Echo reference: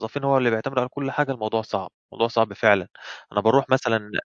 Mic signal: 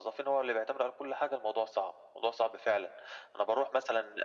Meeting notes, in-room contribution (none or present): none